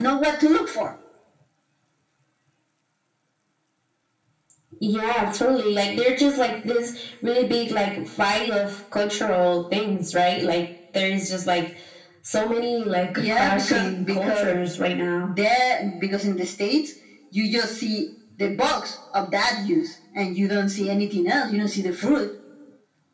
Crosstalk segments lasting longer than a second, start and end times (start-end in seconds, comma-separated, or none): 13.2-14.5